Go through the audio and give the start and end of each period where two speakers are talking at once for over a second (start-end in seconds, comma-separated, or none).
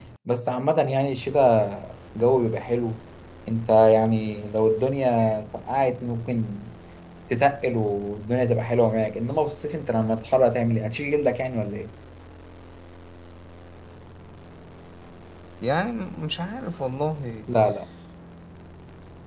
none